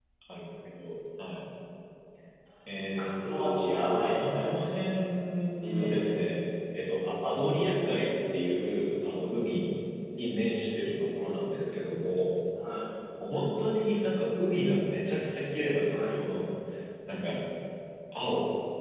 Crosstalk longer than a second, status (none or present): present